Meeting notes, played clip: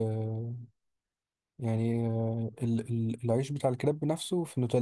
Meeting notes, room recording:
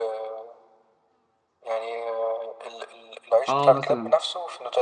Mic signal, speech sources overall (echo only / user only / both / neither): both